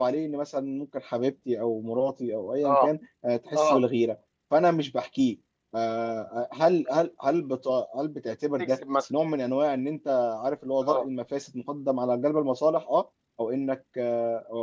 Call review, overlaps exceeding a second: none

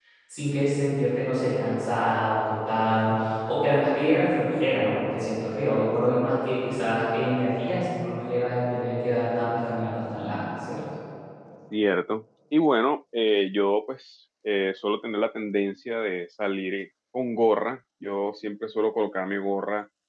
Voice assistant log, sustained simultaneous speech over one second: none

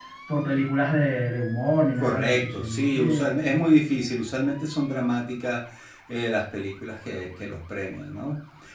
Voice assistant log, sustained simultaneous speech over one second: present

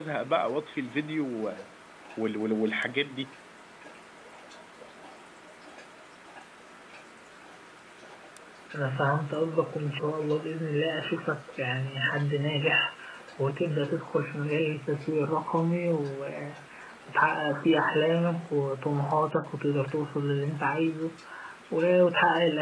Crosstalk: none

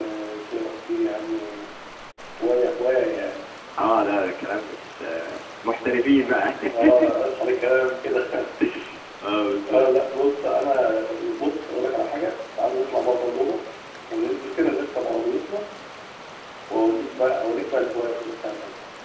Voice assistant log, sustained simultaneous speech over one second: none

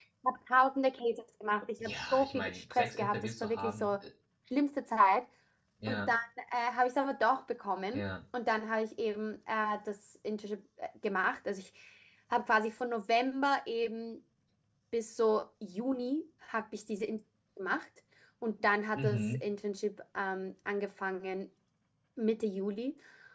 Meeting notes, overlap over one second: present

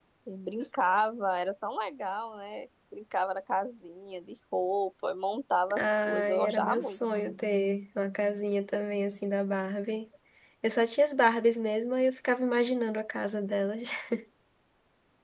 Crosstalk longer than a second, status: present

